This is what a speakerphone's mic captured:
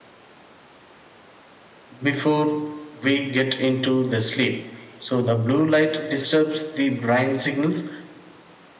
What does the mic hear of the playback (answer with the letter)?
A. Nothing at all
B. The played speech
A